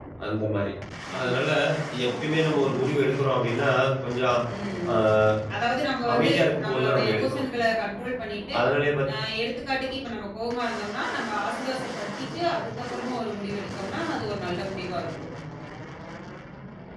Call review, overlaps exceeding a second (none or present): present